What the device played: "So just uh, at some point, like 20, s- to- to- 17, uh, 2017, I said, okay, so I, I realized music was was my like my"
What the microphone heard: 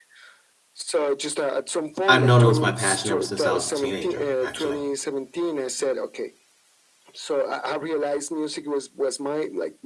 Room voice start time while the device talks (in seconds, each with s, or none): 2.1 s